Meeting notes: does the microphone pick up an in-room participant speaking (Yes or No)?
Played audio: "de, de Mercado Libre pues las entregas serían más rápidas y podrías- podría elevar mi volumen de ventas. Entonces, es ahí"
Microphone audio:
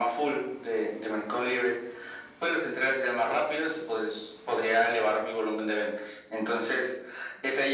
No